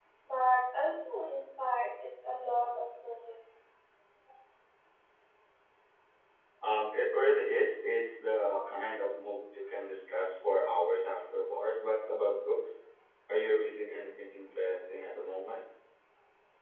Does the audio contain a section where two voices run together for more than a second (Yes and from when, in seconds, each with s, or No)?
No